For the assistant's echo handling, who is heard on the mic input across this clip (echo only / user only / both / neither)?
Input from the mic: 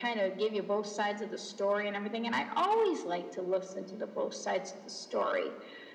echo only